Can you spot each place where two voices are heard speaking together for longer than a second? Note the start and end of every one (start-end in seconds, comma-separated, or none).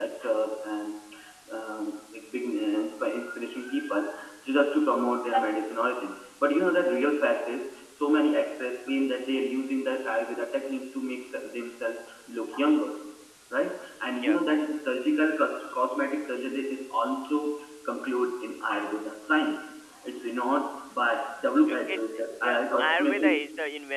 21.7-23.4